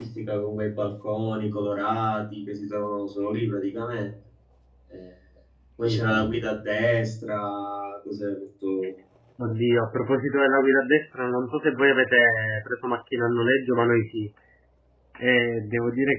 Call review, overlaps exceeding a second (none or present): none